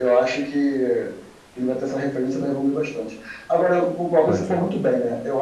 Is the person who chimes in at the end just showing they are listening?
Yes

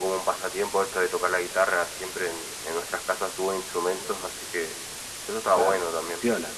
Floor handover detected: Yes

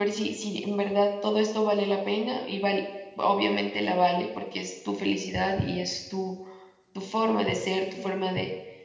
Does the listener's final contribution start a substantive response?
No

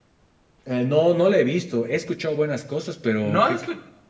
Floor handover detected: Yes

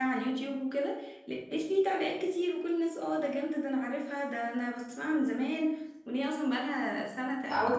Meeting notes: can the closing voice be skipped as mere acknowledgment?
No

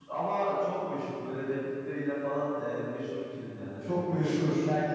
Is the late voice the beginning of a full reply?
No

